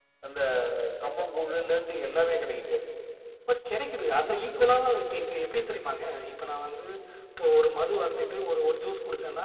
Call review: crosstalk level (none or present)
none